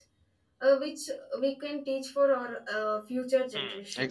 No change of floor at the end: No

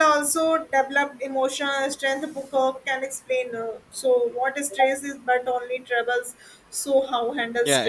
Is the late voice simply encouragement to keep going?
No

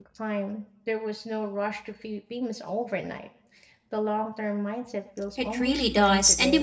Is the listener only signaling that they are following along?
No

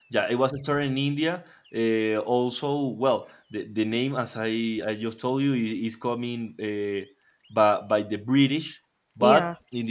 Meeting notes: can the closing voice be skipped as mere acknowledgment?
Yes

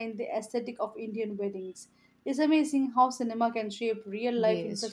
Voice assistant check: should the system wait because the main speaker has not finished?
No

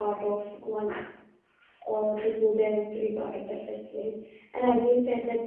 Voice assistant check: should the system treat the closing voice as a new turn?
No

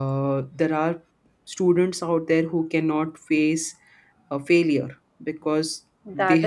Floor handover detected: No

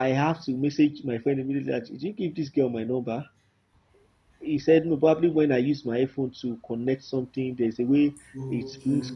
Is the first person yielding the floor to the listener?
No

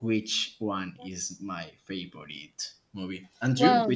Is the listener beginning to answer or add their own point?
Yes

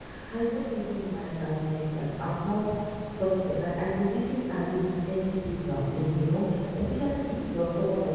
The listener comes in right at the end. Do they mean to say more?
No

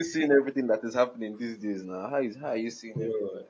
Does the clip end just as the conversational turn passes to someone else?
Yes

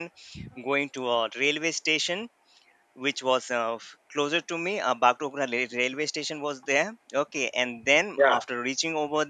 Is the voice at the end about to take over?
No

